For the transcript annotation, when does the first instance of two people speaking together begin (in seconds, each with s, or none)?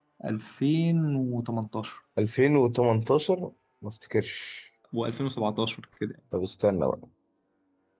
none